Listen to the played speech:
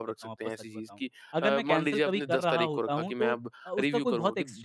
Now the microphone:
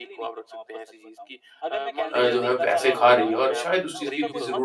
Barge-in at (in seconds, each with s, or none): 2.1 s